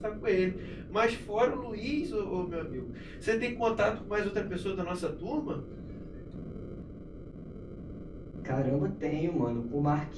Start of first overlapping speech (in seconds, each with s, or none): none